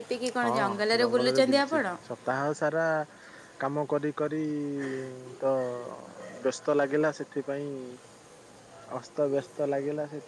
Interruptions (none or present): present